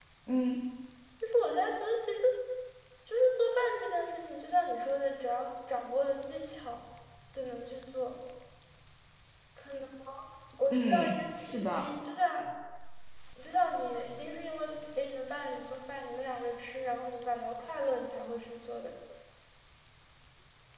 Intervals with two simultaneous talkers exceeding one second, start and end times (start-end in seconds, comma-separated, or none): 10.7-11.9